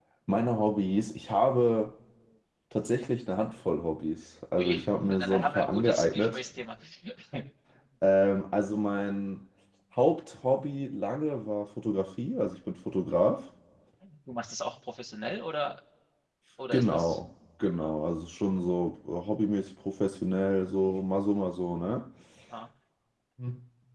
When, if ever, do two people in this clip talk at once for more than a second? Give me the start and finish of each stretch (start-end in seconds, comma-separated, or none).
4.6-6.4